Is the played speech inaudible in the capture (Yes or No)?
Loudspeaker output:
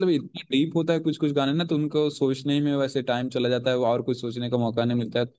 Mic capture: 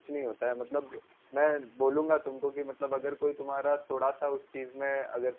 Yes